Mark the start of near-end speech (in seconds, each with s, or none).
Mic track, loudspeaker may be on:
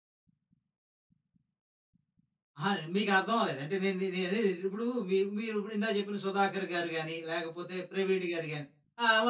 2.6 s